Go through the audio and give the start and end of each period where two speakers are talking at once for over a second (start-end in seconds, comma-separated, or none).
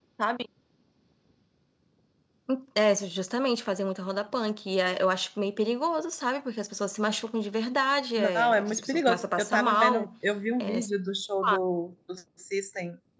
8.2-10.1